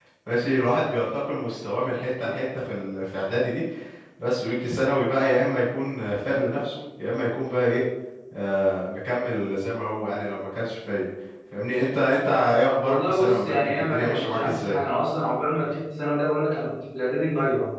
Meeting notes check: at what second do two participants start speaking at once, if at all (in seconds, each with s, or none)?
12.8 s